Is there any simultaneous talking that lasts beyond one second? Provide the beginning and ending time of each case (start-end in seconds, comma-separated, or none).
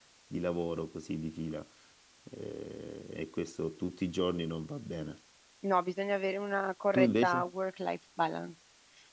none